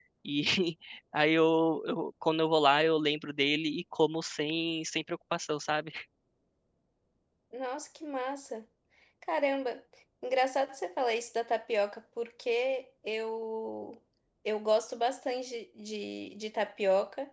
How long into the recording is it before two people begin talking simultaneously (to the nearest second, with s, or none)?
none